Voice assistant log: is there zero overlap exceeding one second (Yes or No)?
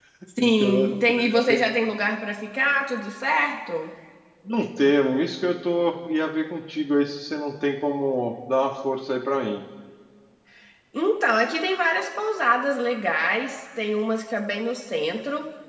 No